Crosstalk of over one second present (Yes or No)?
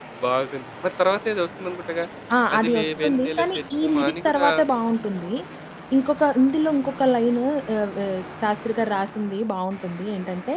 Yes